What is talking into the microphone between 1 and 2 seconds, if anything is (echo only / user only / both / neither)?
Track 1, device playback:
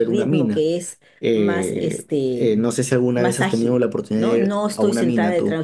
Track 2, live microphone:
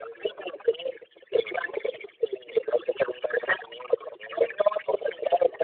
echo only